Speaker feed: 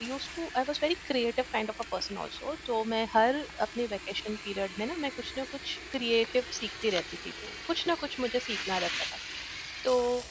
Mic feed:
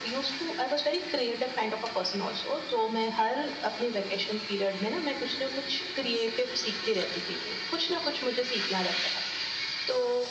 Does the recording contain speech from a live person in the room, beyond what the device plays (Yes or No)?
No